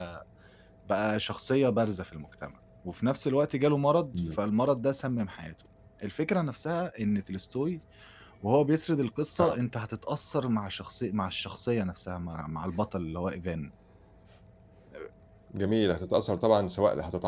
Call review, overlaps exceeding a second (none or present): none